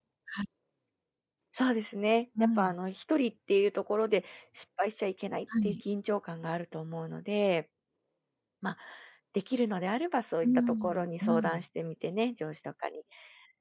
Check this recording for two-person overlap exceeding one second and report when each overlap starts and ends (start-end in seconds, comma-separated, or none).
10.4-11.6